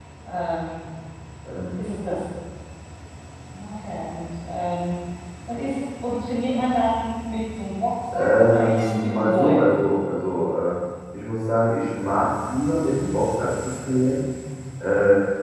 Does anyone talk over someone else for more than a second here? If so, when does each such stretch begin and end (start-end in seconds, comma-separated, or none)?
8.1-9.8